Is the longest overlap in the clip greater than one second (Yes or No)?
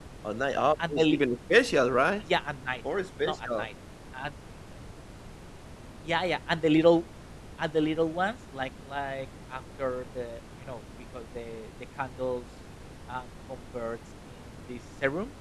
No